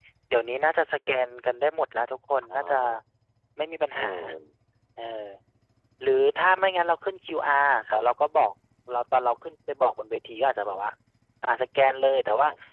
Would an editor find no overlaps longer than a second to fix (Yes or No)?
Yes